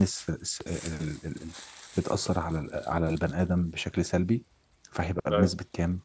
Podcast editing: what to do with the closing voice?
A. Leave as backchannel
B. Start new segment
A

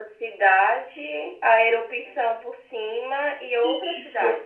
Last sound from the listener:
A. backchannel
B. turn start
B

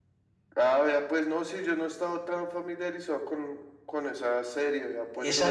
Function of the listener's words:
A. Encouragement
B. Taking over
B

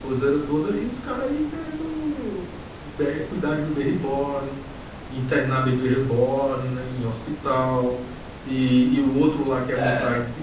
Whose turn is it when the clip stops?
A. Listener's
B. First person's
B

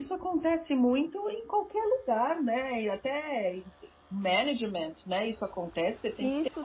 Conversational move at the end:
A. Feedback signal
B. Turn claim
B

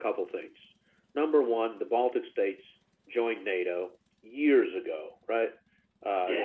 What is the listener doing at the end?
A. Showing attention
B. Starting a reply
A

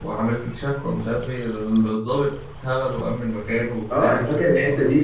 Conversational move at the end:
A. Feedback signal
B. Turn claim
B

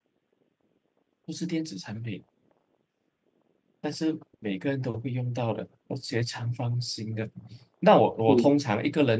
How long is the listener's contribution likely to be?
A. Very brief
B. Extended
A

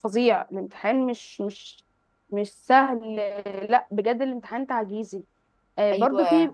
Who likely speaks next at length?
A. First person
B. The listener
A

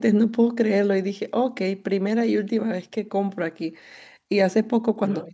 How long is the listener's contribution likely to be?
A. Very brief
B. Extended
A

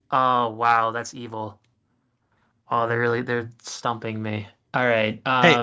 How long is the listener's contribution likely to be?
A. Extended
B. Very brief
A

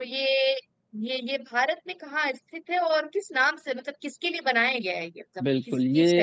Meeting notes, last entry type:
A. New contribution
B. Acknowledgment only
A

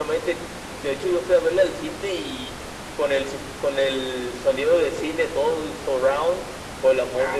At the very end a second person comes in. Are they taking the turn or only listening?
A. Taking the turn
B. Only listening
B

